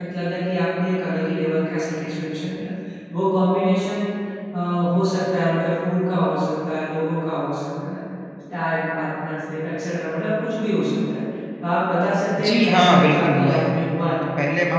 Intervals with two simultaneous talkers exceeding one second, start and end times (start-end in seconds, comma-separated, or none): 12.4-13.8